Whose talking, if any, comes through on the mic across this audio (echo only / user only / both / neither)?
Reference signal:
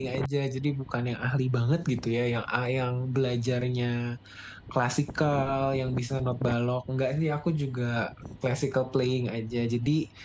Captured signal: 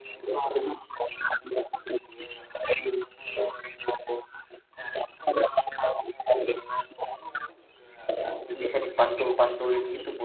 both